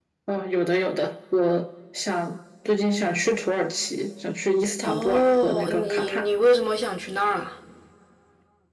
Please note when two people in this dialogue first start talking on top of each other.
4.8 s

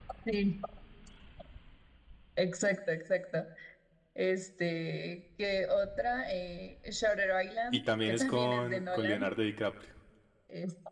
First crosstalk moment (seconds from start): 7.7 s

